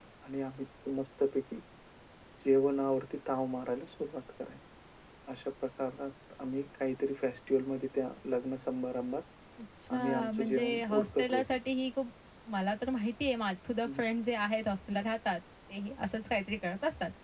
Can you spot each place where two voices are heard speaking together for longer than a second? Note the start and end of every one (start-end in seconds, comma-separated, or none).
9.9-11.6